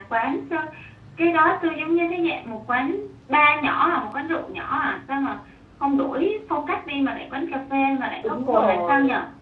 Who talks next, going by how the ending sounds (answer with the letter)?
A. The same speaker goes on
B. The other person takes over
B